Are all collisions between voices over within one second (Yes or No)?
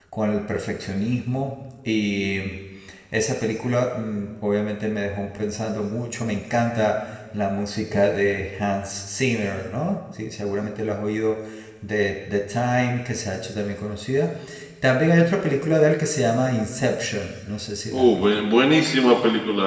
Yes